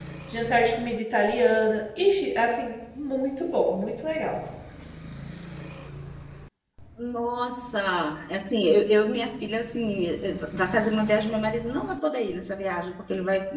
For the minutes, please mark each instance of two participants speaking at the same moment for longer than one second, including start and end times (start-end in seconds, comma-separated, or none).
none